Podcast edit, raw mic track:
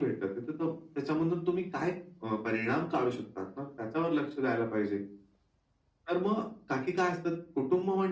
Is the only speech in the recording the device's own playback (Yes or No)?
Yes